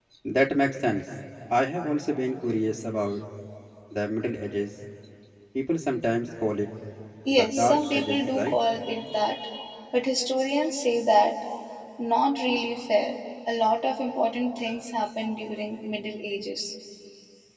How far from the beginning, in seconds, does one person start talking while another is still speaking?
7 s

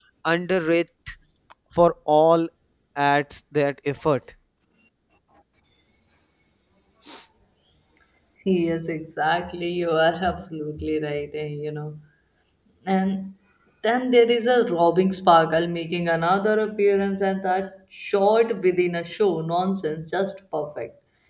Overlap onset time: none

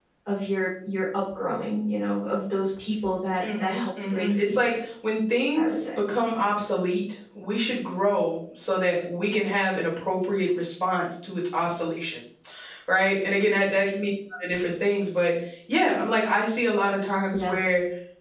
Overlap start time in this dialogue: 3 s

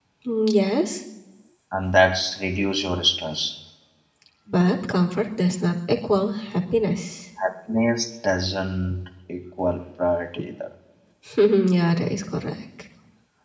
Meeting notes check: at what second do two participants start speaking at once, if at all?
none

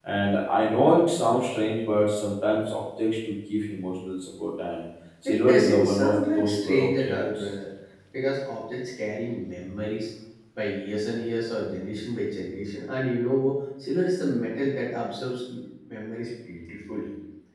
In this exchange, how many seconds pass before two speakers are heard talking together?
5 s

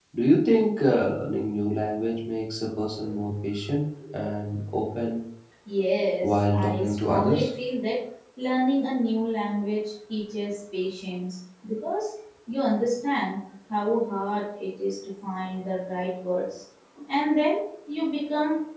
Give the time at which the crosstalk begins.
6 s

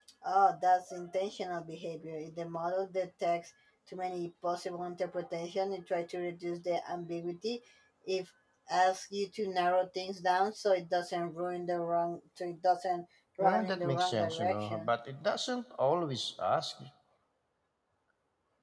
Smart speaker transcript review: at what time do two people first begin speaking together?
13 s

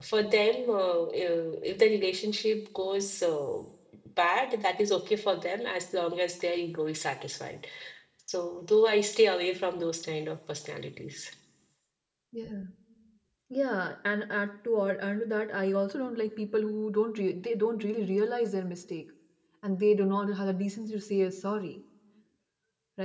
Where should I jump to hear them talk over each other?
none

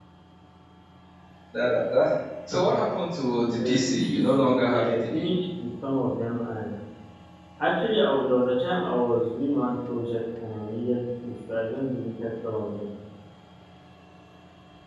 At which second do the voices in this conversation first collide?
4 s

